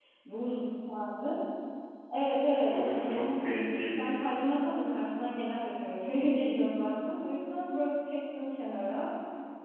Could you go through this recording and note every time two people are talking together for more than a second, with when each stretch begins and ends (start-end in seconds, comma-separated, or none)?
2.7-4.2